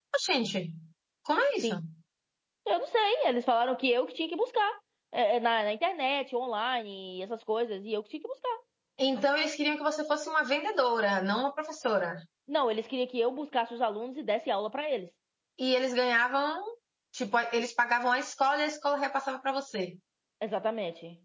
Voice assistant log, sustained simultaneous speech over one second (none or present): none